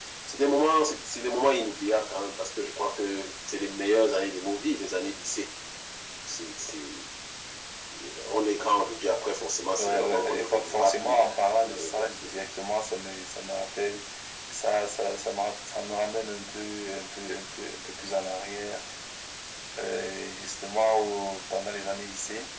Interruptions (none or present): present